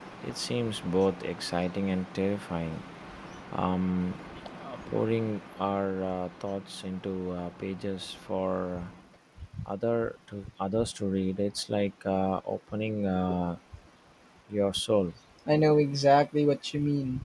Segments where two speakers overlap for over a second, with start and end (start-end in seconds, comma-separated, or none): none